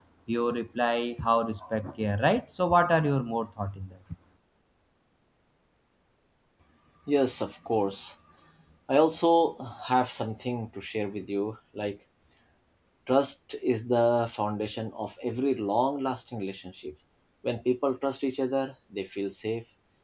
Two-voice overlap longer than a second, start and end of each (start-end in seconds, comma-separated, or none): none